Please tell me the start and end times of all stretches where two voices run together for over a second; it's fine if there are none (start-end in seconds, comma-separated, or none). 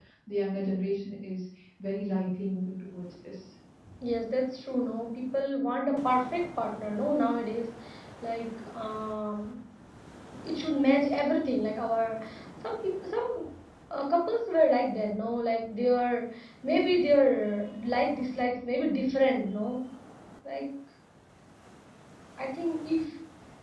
none